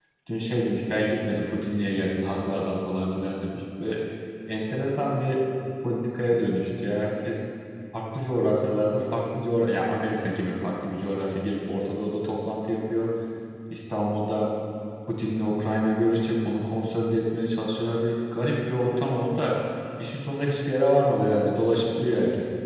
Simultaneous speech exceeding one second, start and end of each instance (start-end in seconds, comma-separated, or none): none